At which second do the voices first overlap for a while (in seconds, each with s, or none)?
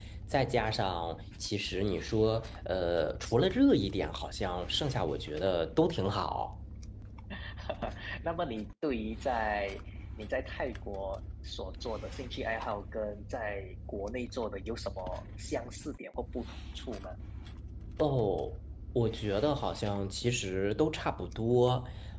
none